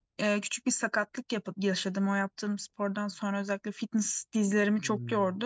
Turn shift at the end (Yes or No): No